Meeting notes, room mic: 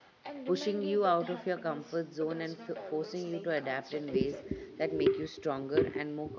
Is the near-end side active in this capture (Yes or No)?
Yes